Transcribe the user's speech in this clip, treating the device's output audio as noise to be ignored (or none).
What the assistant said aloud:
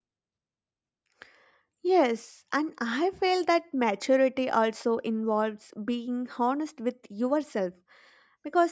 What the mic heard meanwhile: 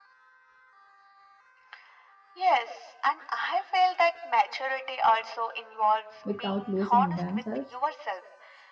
without losing themselves.